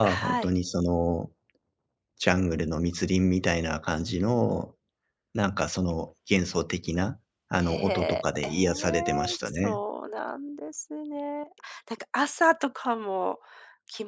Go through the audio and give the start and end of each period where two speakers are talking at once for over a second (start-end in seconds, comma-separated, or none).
7.6-9.8